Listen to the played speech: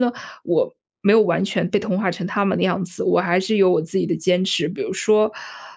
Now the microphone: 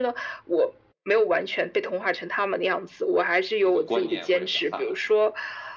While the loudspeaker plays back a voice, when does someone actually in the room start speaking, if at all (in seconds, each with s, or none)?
3.6 s